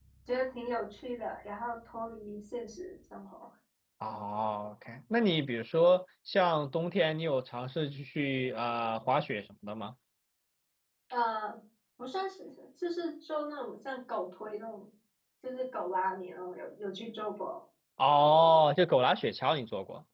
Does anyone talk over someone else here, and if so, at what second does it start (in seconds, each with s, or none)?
none